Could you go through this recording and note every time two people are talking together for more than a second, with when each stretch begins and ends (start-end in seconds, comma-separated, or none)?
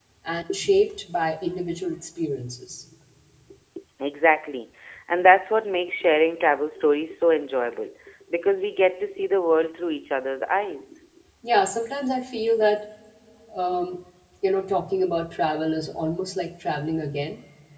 none